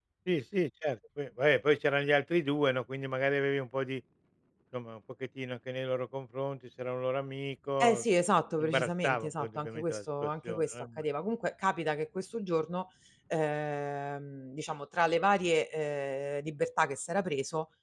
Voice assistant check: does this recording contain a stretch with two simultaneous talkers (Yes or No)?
Yes